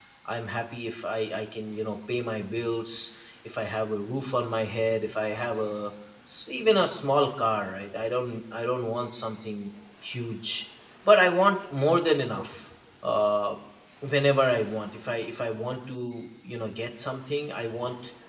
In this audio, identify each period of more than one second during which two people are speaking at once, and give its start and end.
none

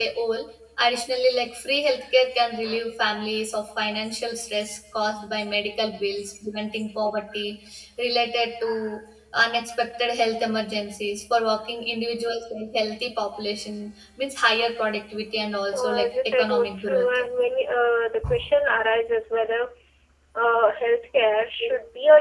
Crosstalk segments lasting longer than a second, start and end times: 15.6-17.1

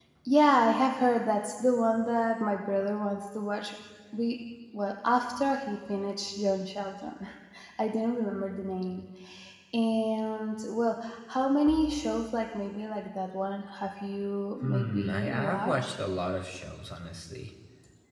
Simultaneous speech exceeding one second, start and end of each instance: 14.6-16.0

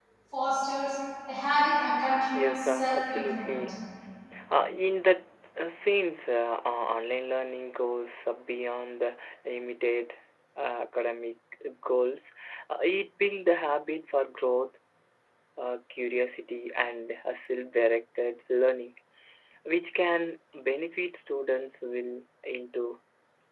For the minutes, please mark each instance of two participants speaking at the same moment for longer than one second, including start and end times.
2.3-3.6

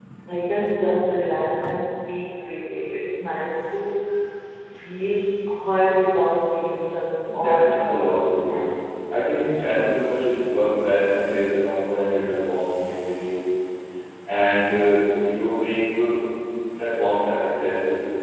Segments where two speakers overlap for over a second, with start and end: 7.3-8.7

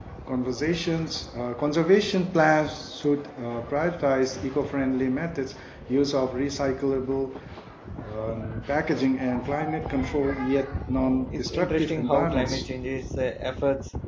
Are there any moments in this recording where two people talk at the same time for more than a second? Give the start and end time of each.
11.3-12.7

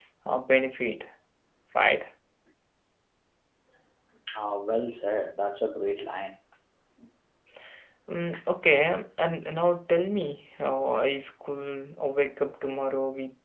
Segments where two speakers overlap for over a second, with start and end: none

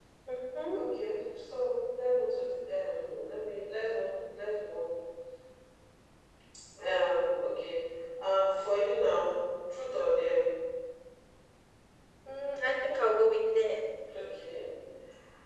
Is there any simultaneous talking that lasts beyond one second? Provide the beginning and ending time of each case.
none

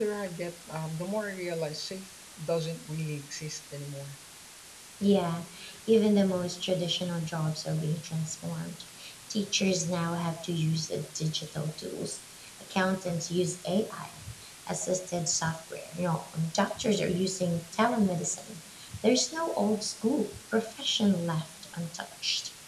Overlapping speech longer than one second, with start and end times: none

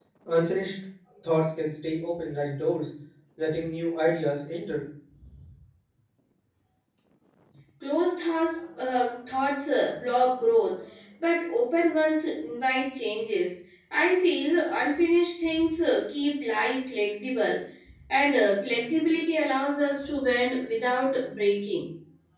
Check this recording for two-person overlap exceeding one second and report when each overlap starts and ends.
none

